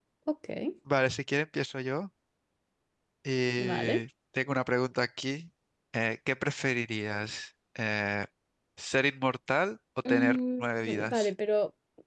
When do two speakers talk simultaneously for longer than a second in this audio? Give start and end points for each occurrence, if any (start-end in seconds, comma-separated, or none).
10.1-11.3